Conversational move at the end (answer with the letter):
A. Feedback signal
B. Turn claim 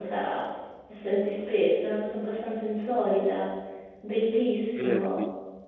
B